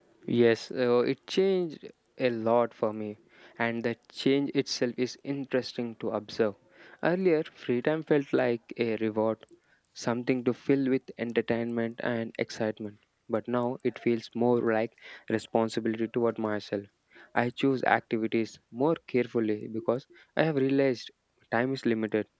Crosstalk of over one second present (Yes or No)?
No